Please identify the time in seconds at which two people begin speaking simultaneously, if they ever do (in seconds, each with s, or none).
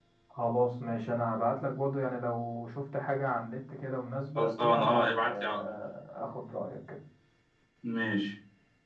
4.3 s